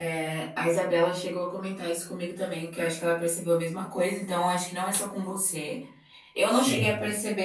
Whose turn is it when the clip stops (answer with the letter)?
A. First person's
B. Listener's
A